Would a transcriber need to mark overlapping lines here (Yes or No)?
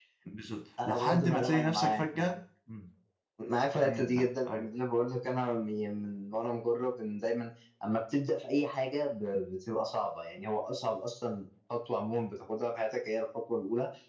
Yes